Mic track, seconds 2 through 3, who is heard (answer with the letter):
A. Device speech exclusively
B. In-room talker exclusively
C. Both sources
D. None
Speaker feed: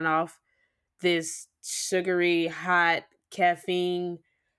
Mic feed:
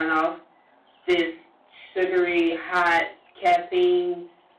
A